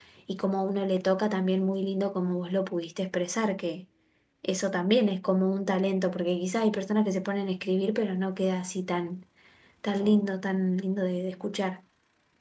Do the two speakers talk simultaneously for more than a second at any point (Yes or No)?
No